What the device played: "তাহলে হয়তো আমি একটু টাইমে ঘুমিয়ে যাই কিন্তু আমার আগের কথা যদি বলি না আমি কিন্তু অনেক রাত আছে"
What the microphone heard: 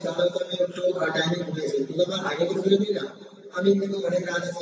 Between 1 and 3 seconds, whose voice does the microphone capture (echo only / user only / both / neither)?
echo only